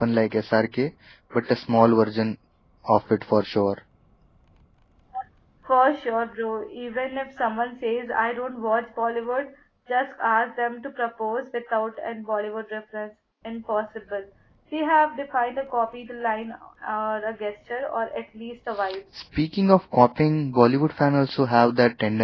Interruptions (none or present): none